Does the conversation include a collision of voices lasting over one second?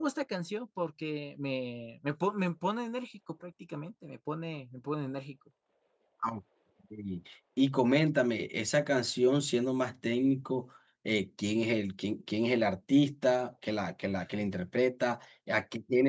No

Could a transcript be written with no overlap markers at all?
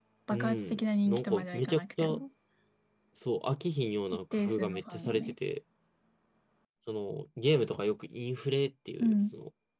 No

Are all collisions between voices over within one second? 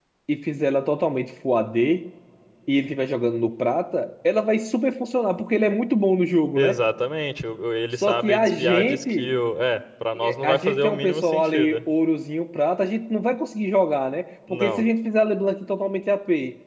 No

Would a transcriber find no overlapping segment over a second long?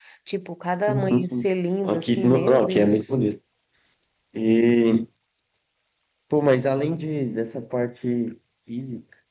No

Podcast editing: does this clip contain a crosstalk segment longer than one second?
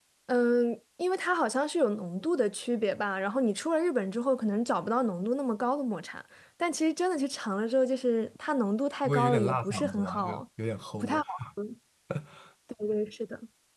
Yes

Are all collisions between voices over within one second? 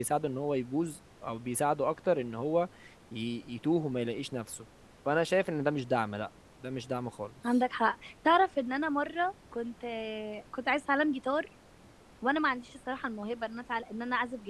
Yes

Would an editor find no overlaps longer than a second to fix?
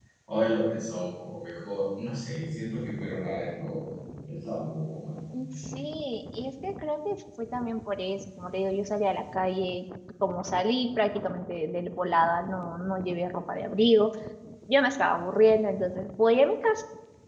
Yes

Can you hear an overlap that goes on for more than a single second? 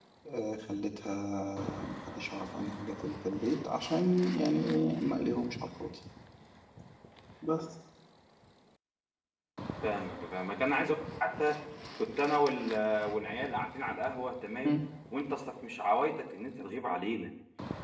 No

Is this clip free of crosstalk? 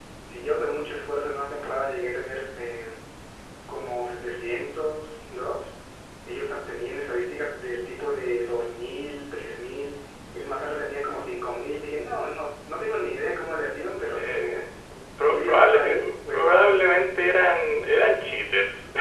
No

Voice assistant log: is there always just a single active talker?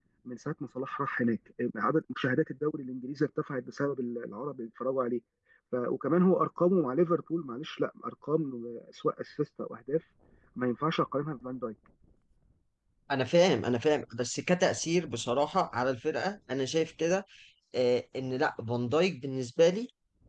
Yes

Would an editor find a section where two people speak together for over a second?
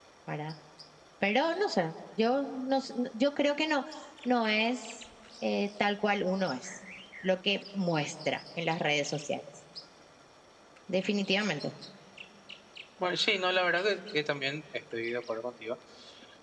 No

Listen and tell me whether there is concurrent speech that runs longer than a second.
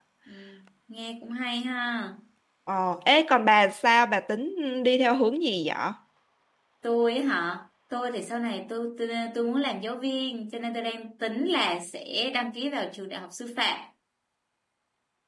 No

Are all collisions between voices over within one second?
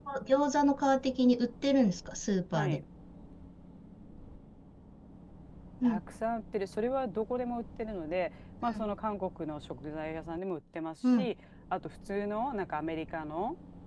Yes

